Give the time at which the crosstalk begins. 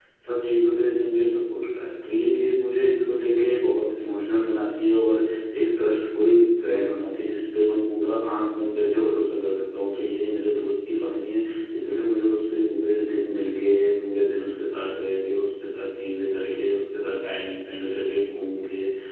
none

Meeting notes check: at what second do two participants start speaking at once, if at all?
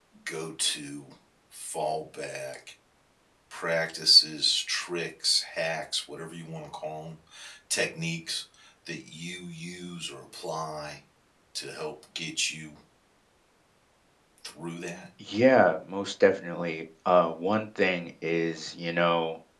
none

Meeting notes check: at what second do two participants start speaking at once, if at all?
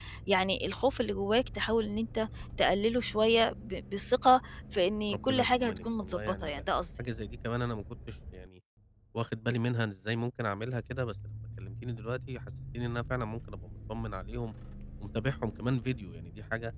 5.1 s

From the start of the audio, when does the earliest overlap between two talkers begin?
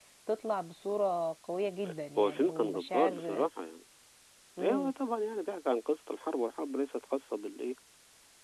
2.2 s

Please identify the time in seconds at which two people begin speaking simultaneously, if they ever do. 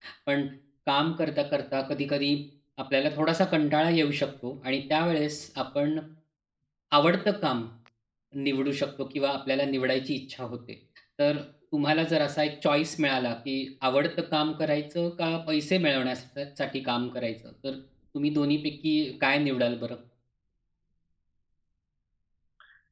none

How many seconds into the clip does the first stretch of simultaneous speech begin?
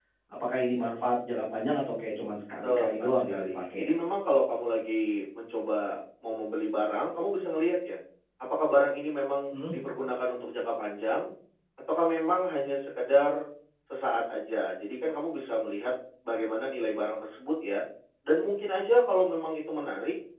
2.6 s

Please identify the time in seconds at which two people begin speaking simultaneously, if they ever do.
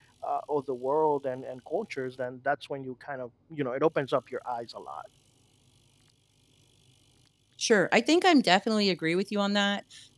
none

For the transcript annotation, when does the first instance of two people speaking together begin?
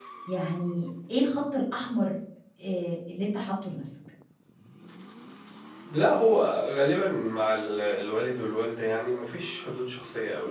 none

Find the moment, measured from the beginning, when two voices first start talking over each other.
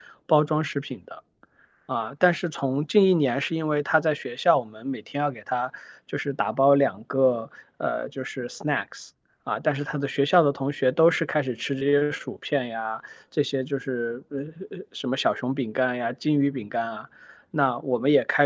none

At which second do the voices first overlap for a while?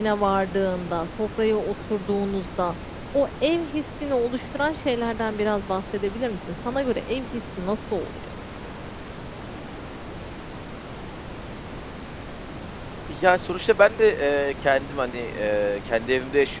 none

